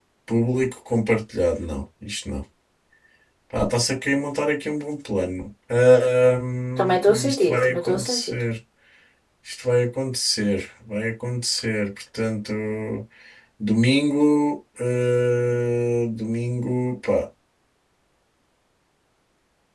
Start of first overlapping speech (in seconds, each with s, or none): 6.8 s